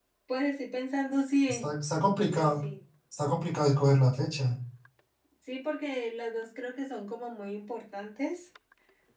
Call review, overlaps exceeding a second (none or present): none